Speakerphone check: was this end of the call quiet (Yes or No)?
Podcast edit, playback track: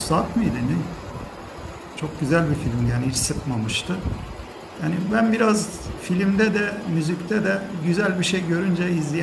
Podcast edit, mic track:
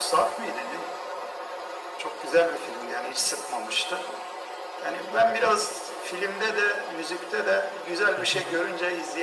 No